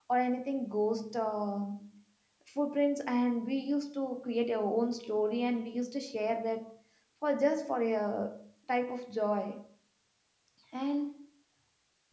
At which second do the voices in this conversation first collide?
none

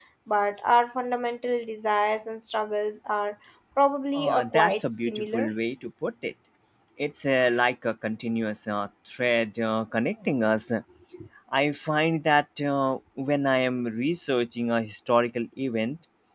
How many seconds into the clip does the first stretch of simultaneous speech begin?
4 s

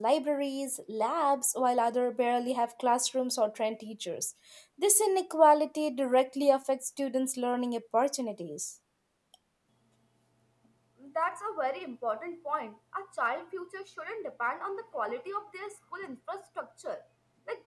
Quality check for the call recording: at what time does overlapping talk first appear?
none

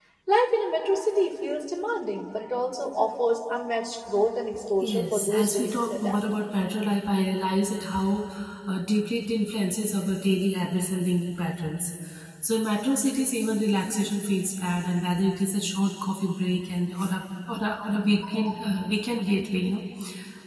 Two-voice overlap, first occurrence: 5 s

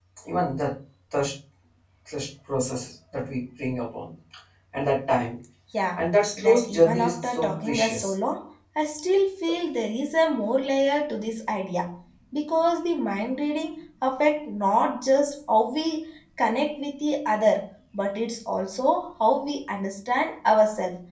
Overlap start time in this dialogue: 6 s

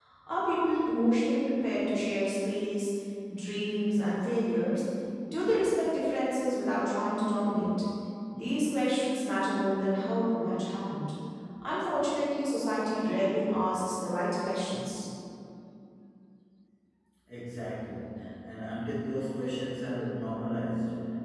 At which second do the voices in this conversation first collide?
none

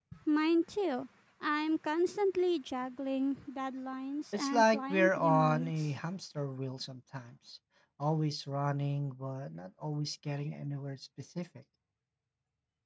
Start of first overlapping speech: 4 s

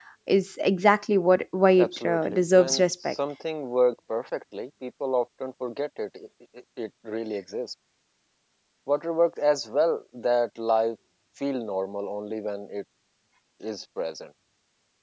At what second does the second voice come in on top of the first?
2 s

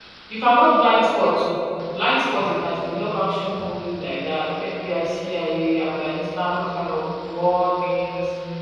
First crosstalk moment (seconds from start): none

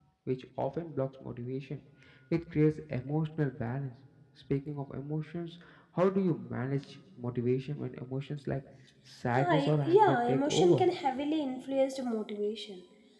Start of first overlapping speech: 9 s

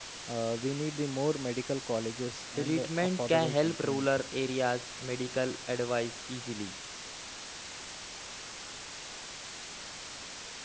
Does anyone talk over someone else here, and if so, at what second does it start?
3 s

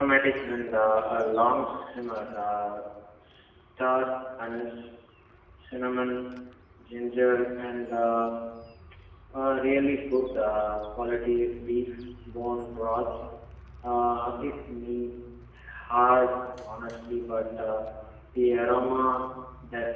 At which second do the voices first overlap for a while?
none

